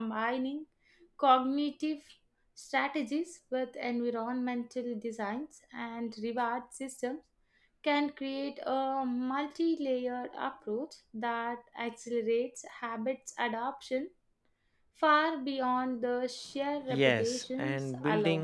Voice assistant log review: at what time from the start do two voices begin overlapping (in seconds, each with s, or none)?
16.9 s